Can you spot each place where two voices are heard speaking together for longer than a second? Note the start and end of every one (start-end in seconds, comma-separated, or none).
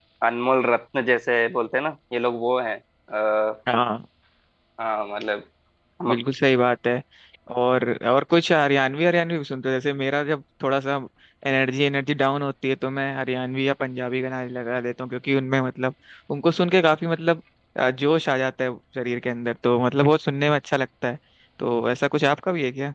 none